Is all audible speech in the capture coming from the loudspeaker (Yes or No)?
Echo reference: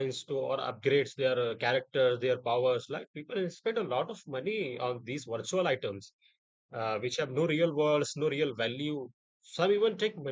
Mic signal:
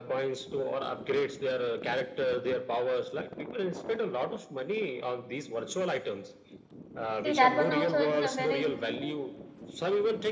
No